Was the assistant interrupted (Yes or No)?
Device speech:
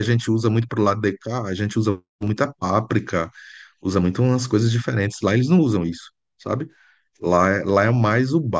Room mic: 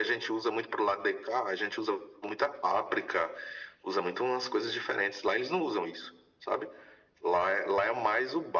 No